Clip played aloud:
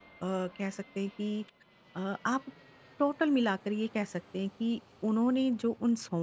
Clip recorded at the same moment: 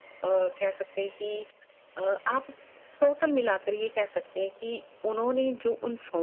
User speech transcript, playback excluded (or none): none